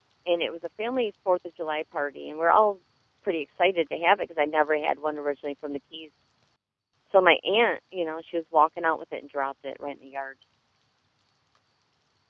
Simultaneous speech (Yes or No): No